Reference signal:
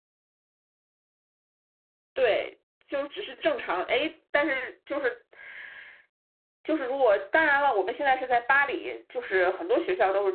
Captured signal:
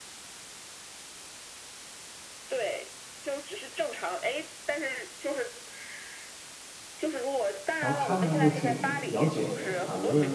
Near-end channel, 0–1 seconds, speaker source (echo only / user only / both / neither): neither